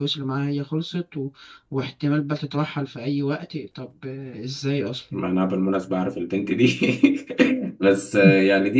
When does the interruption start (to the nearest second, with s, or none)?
none